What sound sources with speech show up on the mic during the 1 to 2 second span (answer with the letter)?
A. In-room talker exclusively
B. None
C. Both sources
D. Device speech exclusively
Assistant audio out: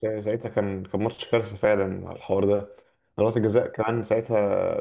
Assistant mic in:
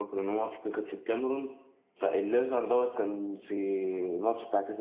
A